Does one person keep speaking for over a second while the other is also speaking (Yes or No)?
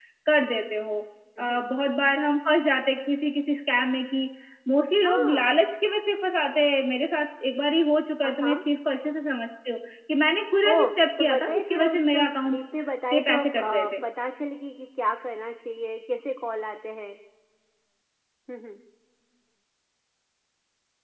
Yes